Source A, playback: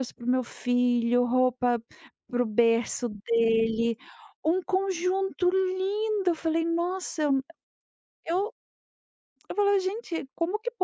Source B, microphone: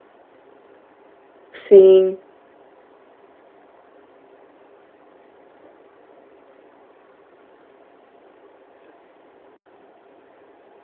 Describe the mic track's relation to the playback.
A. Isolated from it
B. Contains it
A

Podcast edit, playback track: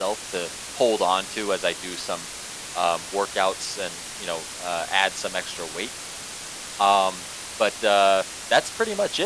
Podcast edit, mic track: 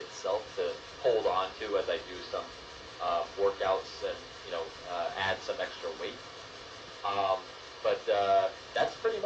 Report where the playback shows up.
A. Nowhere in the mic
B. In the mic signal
B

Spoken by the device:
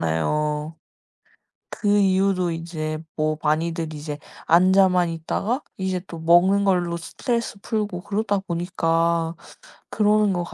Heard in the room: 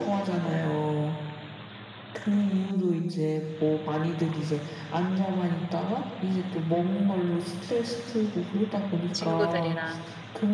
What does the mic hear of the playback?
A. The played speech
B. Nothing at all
A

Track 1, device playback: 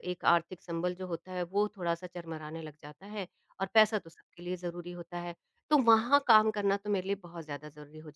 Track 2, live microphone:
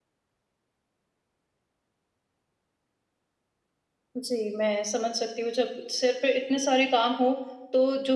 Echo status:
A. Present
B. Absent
B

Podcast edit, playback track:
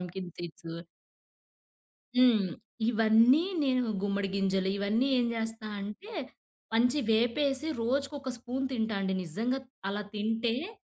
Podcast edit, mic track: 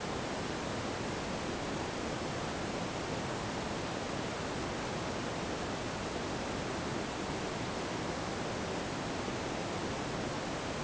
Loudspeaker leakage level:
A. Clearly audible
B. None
B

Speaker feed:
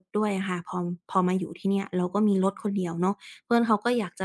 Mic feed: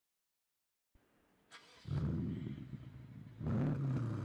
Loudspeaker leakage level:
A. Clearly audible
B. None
B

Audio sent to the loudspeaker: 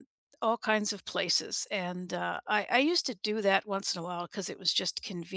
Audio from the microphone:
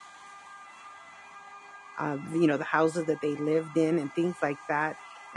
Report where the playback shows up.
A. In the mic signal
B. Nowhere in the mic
B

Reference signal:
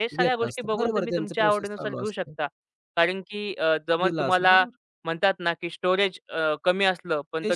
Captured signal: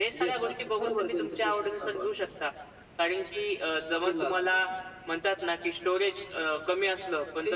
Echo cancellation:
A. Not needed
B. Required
B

